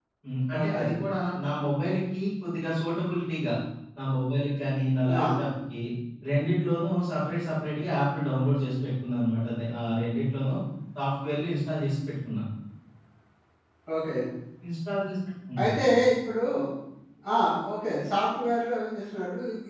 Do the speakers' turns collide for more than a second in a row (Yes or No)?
No